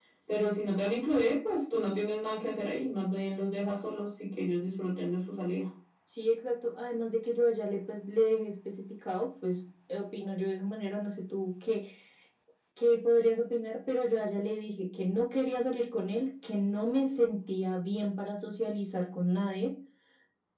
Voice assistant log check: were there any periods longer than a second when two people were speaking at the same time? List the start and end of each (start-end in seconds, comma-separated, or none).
none